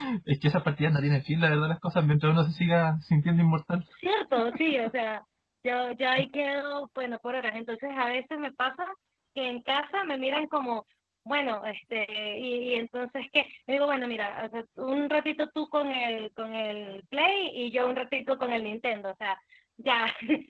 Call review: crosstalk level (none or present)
none